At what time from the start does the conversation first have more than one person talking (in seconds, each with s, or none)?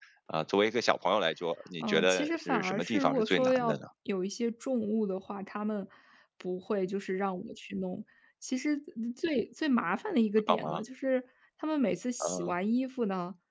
1.8 s